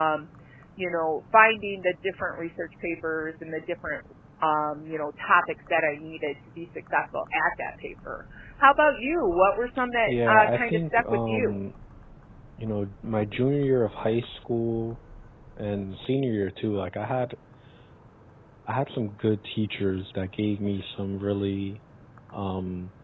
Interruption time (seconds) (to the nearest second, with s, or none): 10 s